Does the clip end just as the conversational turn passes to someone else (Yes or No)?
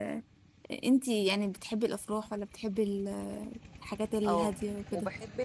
Yes